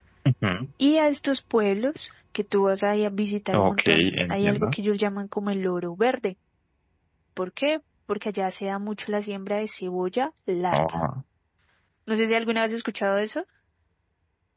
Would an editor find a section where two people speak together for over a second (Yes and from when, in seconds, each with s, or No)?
Yes, from 3.5 s